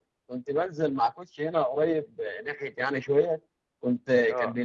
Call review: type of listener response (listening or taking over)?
listening